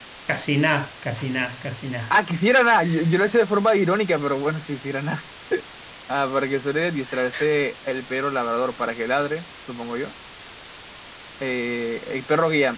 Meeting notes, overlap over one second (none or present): none